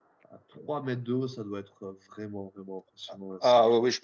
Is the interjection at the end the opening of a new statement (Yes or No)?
Yes